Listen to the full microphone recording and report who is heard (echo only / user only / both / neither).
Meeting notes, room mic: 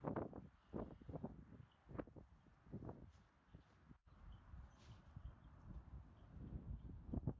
neither